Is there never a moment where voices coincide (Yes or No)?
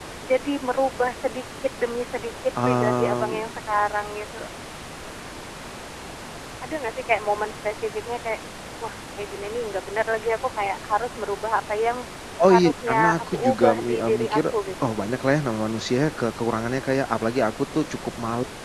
No